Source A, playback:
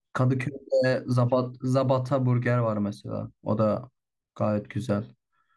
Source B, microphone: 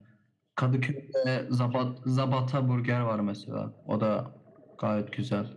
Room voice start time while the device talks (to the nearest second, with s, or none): none